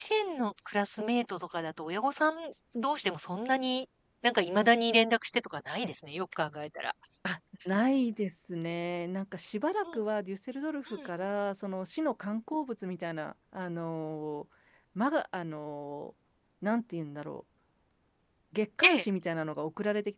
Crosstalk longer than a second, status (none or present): none